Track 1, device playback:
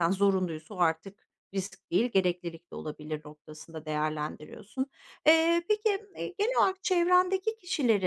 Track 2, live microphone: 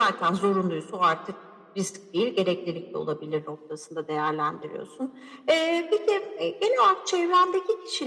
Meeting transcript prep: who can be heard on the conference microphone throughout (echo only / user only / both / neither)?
echo only